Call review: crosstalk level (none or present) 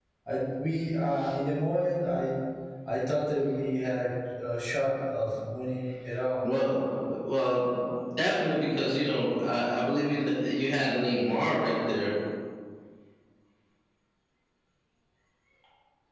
none